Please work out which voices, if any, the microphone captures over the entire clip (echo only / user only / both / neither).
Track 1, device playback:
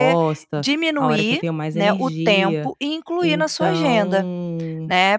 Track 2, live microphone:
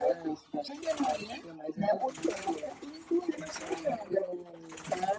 echo only